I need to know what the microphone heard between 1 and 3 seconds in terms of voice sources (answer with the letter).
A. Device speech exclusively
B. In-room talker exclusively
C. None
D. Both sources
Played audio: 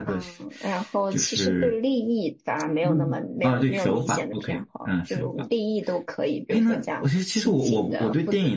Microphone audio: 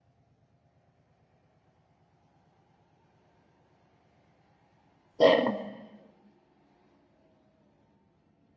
C